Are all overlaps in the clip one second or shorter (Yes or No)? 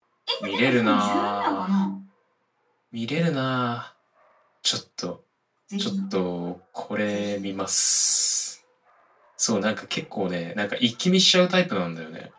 No